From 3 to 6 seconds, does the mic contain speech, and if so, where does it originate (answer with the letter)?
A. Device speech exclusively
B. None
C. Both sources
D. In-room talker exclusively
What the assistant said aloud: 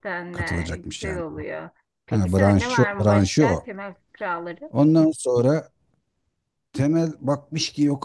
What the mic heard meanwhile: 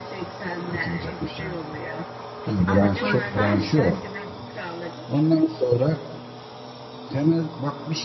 C